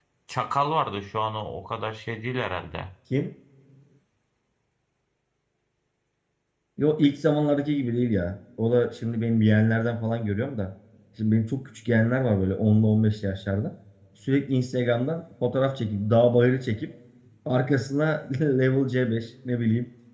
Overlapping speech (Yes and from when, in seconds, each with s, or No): No